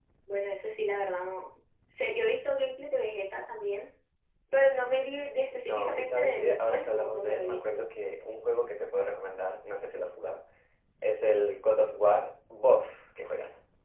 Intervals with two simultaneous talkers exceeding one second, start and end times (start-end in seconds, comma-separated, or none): 5.7-7.8